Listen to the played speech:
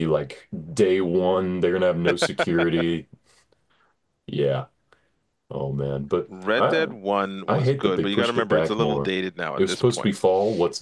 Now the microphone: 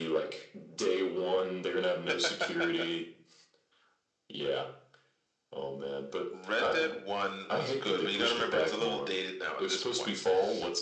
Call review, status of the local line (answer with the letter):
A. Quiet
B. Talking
A